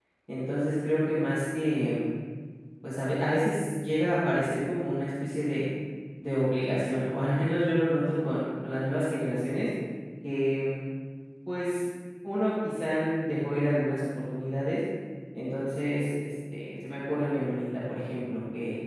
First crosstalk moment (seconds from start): none

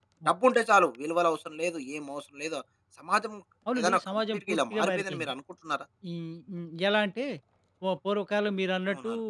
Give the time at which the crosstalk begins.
4 s

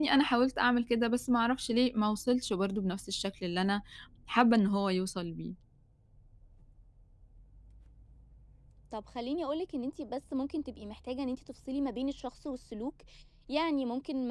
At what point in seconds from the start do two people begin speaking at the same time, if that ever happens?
none

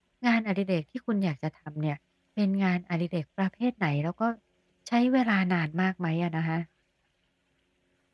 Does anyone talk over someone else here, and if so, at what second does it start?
none

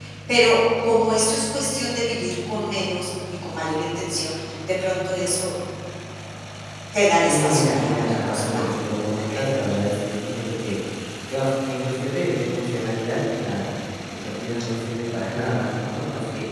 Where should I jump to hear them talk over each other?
7 s

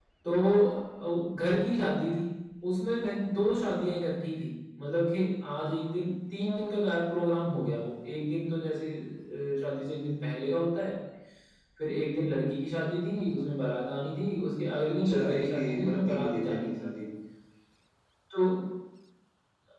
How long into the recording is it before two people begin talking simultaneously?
15 s

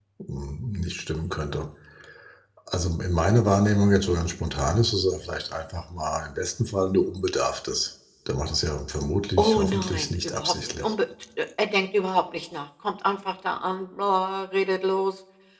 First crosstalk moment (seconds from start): 9 s

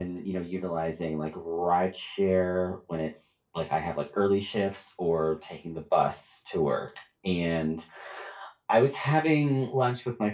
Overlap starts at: none

